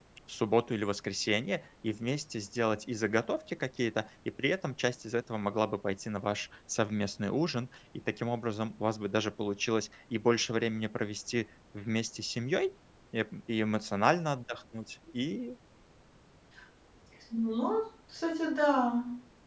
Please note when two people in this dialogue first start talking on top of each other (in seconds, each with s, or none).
none